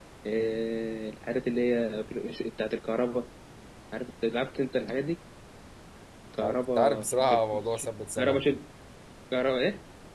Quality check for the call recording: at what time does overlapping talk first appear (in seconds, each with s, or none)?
6.4 s